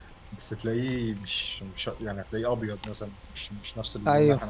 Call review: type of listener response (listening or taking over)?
taking over